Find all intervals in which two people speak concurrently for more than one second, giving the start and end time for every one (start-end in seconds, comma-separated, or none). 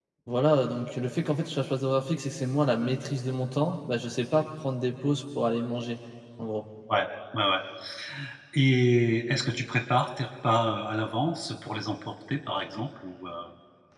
none